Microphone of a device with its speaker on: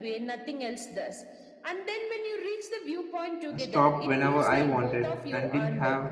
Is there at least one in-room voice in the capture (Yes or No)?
Yes